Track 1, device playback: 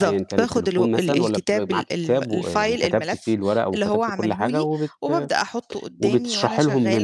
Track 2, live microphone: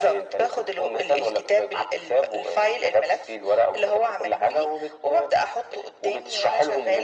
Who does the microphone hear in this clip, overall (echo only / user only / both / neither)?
echo only